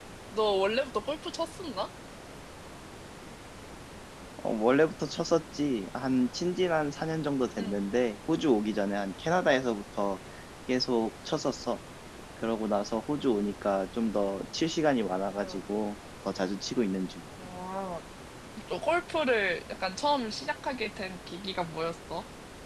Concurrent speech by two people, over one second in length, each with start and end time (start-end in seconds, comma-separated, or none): none